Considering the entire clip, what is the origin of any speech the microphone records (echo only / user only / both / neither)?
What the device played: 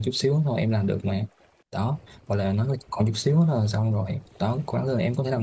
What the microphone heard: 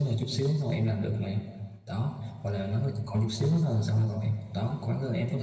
echo only